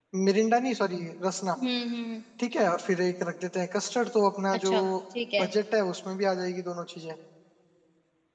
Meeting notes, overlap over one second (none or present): none